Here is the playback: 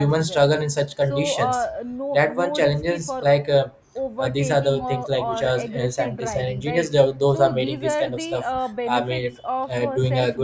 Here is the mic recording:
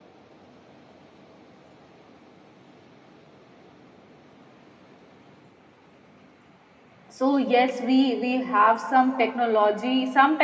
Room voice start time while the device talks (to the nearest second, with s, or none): 7 s